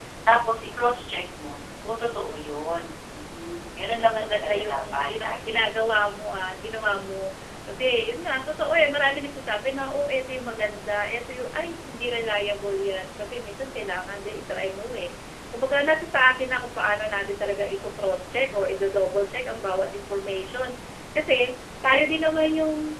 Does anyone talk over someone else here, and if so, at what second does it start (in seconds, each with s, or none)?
4.0 s